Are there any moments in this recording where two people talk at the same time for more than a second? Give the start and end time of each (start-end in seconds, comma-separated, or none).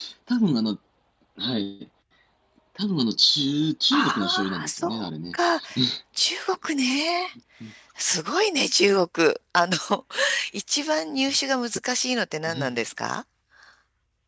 3.9-5.3